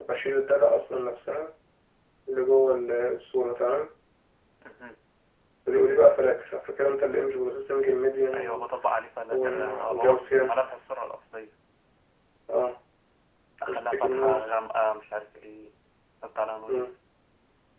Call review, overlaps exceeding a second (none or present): present